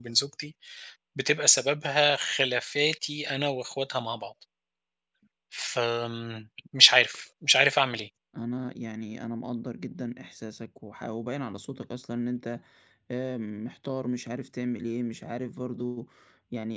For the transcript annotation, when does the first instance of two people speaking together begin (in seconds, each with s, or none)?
none